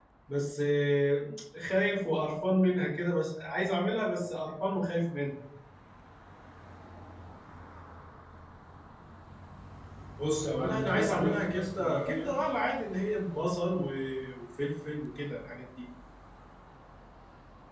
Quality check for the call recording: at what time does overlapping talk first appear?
10.5 s

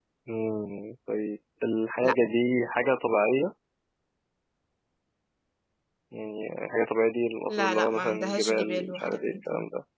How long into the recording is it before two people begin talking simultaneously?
7.5 s

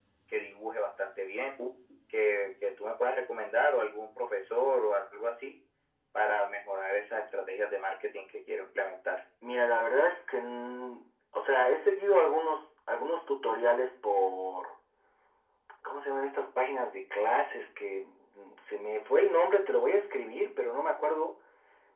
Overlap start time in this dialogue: none

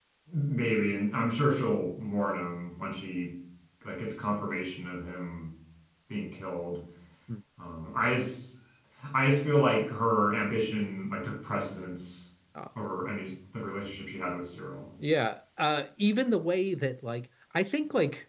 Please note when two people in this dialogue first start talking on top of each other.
none

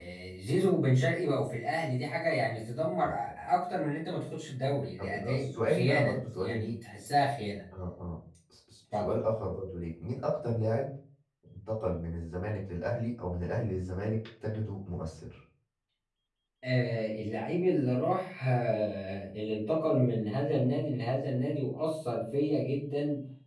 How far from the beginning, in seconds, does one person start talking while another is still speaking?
5.0 s

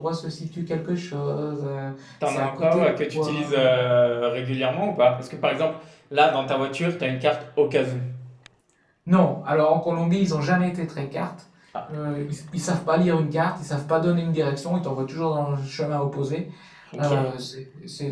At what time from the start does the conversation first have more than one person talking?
2.3 s

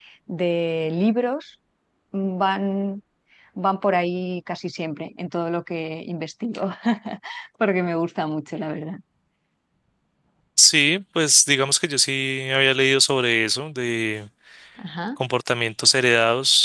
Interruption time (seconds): none

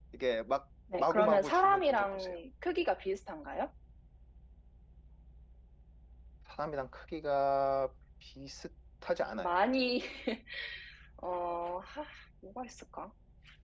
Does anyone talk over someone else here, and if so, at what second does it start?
0.9 s

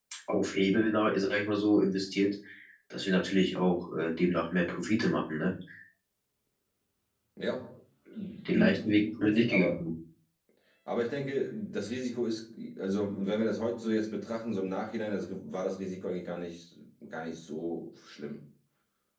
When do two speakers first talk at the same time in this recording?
8.4 s

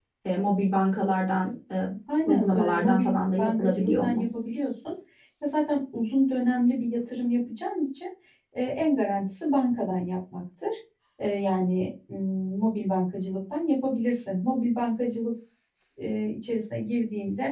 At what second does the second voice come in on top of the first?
2.3 s

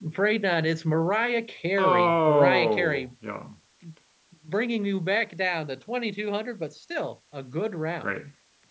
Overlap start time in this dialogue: 1.8 s

